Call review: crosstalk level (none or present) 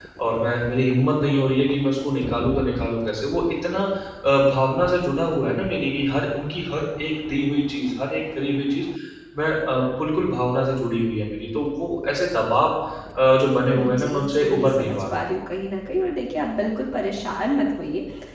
present